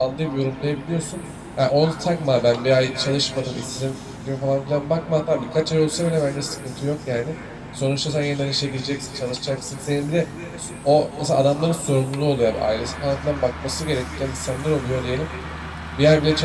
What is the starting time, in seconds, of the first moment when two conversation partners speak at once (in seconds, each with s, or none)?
none